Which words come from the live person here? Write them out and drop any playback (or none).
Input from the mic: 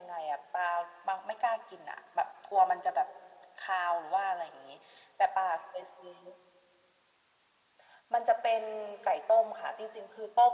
none